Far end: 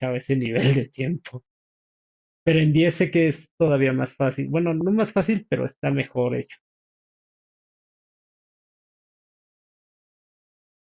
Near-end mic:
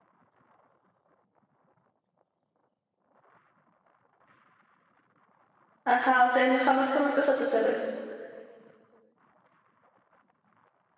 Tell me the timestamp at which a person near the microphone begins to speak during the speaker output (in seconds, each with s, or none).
5.8 s